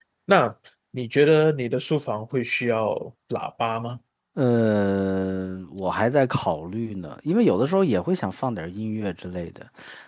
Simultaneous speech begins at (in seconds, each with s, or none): none